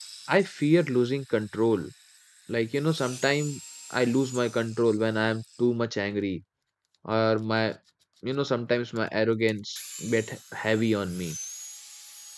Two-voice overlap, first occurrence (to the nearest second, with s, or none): none